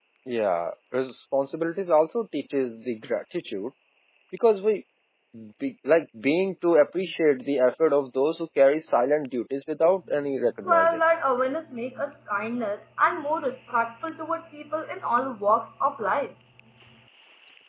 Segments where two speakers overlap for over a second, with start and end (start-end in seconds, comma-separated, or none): none